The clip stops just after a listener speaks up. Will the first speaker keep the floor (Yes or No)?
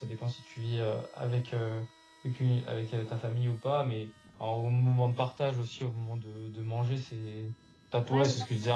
Yes